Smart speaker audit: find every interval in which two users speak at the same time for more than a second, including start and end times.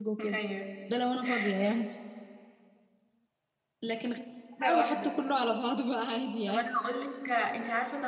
none

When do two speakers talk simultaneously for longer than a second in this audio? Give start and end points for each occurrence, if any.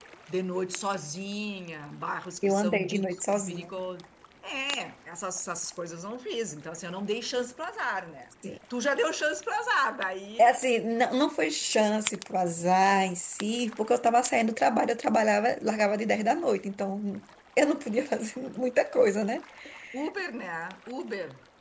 2.4-3.7

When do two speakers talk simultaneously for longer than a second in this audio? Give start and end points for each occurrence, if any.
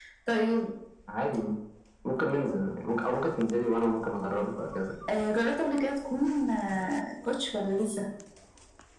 none

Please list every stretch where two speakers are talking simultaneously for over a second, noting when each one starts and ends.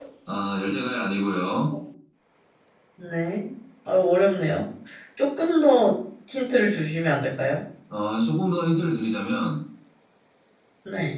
none

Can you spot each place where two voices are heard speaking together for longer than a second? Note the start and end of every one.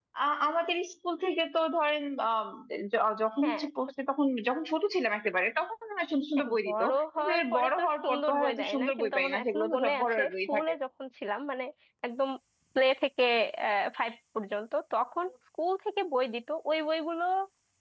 6.4-10.7

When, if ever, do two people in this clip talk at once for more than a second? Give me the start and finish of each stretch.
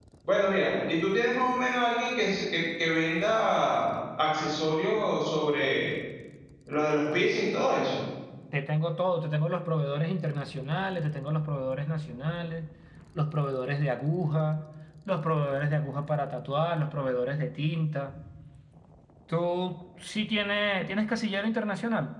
none

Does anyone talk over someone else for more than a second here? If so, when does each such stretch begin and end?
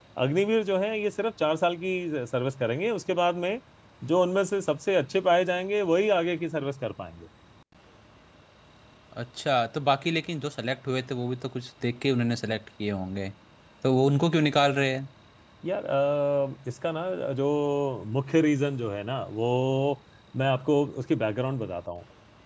none

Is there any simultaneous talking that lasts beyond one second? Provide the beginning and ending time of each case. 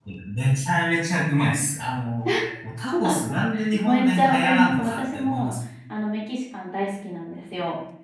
3.8-5.5

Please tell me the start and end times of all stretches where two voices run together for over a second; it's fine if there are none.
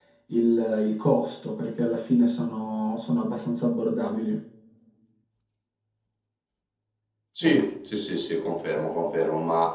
none

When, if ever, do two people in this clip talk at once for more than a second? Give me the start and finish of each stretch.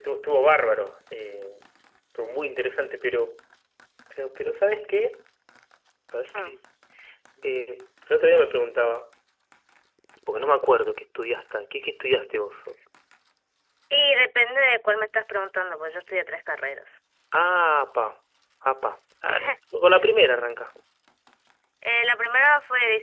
none

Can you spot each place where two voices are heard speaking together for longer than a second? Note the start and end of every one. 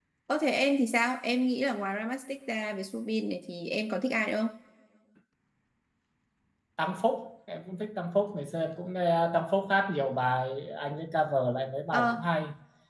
none

